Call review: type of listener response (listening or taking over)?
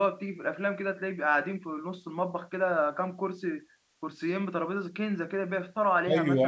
taking over